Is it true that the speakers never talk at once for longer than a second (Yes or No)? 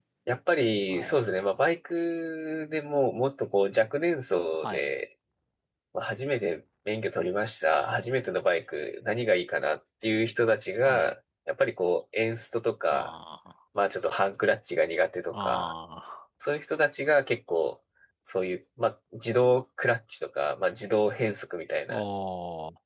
Yes